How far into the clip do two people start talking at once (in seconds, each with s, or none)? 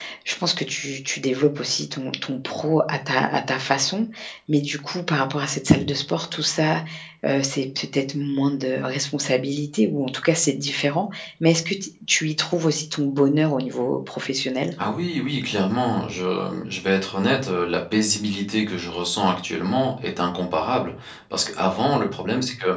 none